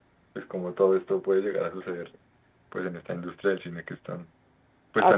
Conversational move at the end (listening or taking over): taking over